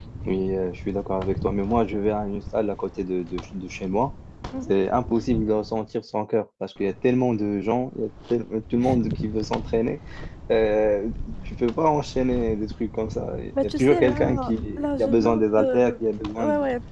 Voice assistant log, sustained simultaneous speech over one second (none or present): present